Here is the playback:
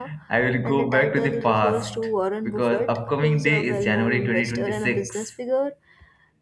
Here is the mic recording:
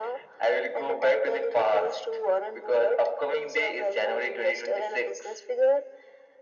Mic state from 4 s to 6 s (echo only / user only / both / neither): echo only